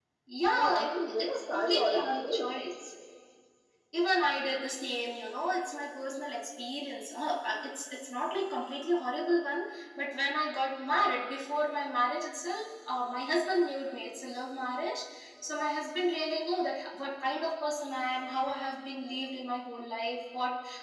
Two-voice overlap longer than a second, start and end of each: 0.5-2.5

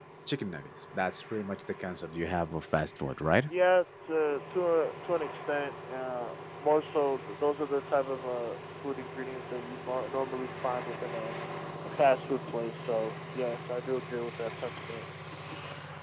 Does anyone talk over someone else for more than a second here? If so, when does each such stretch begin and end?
none

